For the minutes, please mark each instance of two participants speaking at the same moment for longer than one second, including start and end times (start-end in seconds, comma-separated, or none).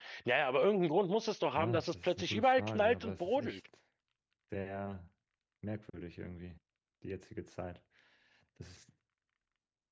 1.6-3.6